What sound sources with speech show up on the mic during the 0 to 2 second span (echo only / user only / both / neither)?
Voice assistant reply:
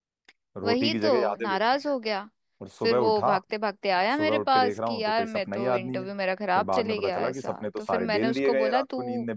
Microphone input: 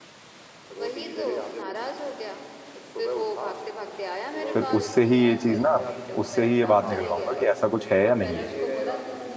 echo only